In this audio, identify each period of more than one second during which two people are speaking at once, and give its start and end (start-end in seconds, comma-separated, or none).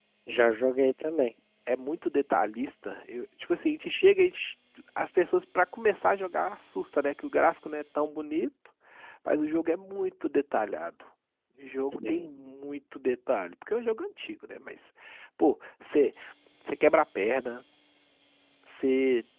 none